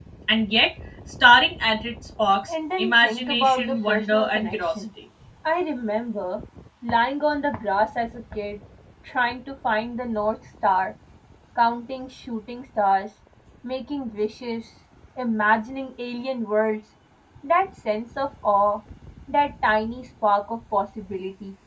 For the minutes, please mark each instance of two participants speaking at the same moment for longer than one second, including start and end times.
2.5-4.8

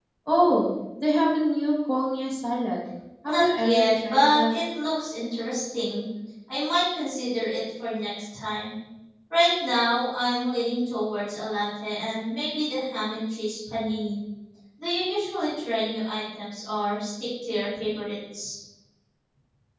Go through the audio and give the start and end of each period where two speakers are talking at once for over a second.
3.2-4.5

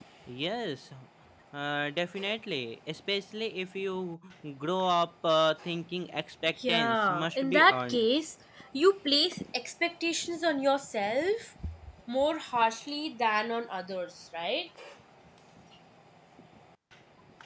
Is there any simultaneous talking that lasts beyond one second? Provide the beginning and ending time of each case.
6.7-8.0

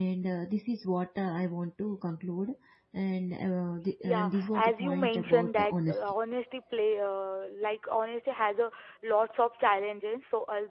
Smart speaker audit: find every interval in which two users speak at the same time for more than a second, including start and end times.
4.0-6.1

